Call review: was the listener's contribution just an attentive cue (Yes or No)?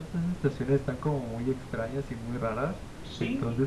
Yes